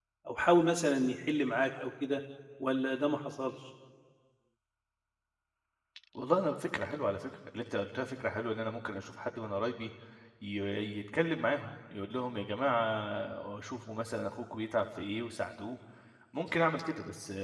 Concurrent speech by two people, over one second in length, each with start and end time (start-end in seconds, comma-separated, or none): none